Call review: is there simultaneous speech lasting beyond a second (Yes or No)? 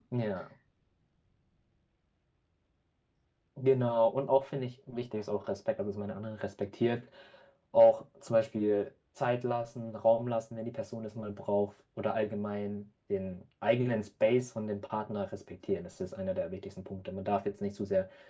No